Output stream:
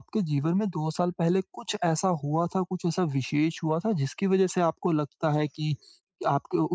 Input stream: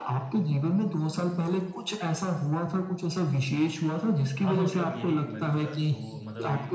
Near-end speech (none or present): present